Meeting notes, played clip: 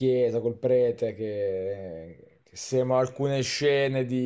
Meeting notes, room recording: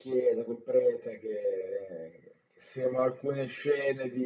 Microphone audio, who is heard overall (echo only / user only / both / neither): echo only